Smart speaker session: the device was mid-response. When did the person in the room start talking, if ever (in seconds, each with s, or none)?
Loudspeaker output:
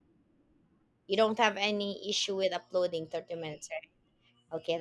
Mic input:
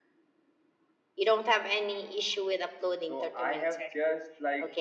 3.0 s